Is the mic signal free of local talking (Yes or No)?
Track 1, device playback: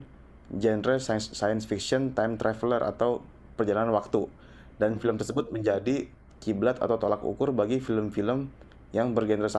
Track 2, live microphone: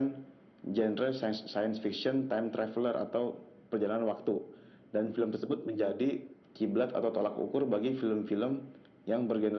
Yes